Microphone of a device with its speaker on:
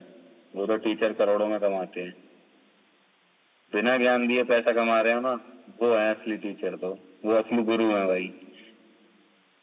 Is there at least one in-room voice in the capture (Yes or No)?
No